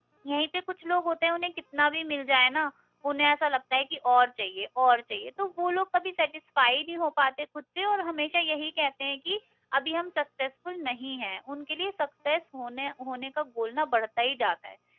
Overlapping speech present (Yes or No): No